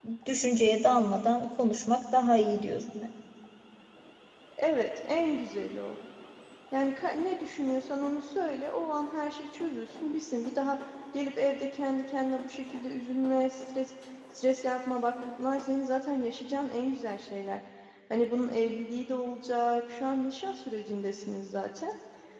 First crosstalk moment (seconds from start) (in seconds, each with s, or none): none